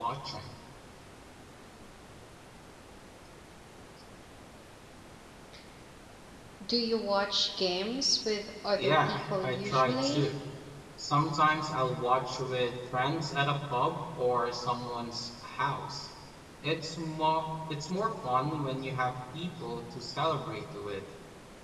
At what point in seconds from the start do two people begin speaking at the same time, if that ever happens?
8.8 s

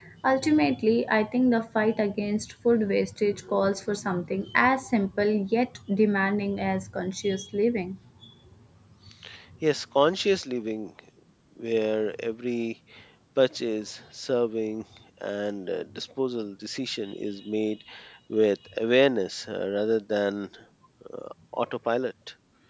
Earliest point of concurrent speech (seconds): none

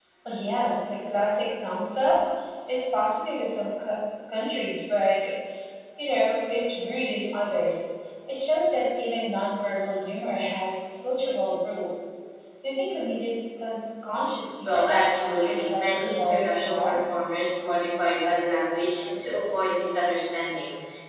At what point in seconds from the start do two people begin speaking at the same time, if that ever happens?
14.7 s

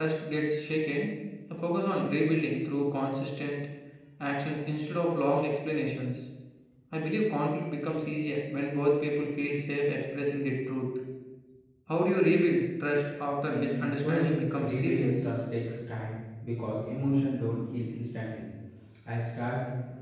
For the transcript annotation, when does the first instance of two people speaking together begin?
13.5 s

